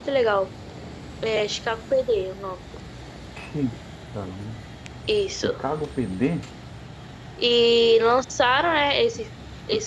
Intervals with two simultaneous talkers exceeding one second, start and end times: none

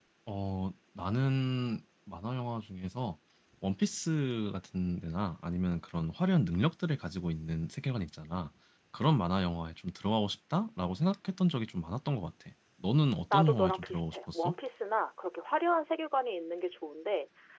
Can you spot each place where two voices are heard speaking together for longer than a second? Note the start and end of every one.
13.3-14.5

